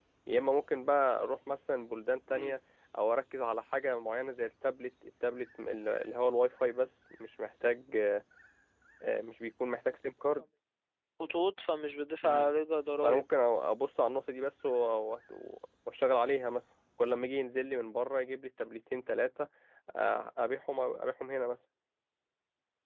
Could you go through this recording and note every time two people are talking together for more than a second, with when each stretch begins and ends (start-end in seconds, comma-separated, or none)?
none